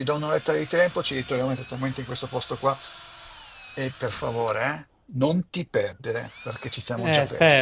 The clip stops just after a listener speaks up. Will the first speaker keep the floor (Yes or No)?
No